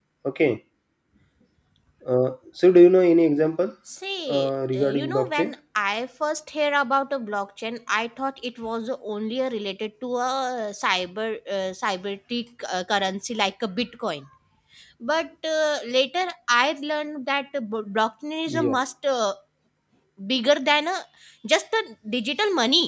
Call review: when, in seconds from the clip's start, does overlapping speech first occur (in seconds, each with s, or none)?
4.3 s